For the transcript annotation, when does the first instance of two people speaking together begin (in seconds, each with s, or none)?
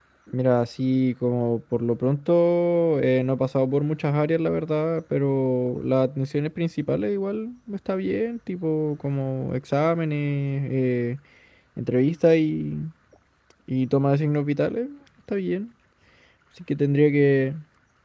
none